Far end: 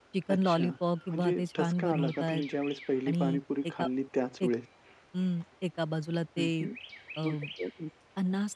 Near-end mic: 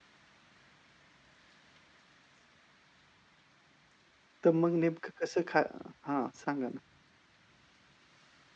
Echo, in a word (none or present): none